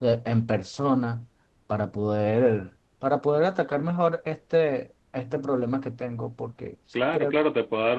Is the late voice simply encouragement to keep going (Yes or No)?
No